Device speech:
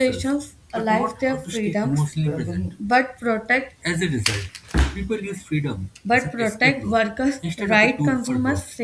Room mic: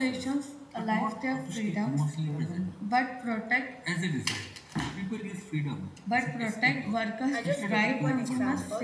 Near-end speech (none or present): present